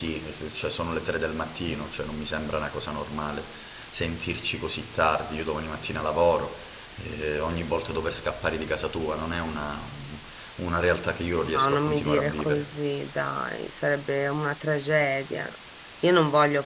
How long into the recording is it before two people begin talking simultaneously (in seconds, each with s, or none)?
11.4 s